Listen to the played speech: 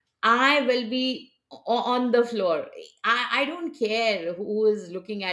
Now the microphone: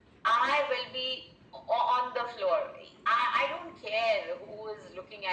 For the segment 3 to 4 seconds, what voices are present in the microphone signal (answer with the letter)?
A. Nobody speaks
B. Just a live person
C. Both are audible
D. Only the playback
D